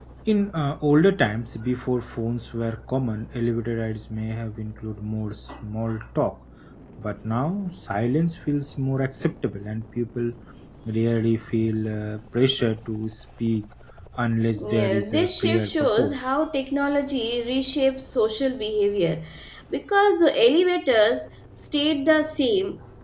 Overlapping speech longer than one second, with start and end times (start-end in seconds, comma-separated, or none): 14.7-16.2